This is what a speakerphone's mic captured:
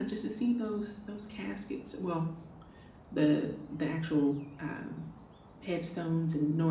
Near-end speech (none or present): none